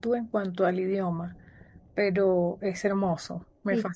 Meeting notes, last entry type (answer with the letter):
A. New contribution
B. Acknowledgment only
A